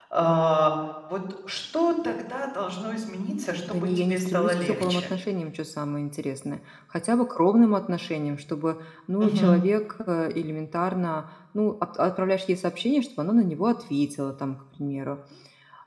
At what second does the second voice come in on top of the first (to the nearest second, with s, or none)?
4 s